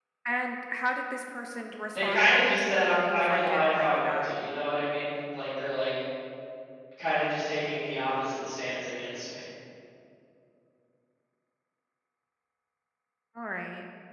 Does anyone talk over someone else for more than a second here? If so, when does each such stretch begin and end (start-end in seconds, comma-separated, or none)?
1.9-4.3